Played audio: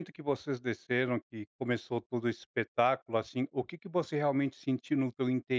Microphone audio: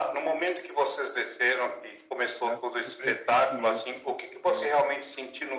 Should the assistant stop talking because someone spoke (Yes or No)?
Yes